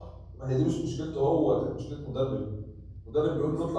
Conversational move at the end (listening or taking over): listening